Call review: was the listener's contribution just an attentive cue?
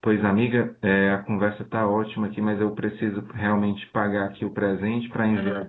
Yes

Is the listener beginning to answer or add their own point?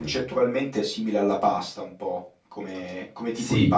Yes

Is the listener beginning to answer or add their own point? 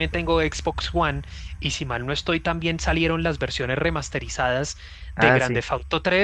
No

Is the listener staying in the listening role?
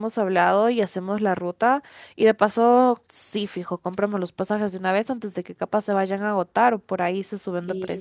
No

